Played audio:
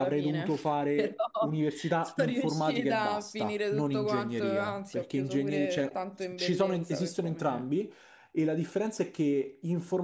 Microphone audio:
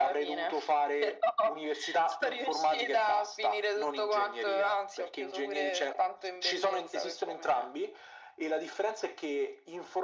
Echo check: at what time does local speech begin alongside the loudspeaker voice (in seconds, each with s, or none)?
none